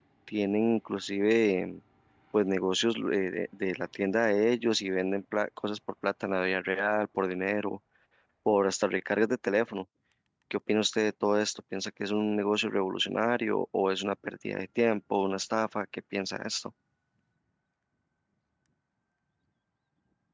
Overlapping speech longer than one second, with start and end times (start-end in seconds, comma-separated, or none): none